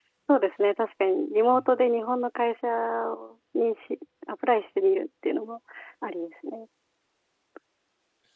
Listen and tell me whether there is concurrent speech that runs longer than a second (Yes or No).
No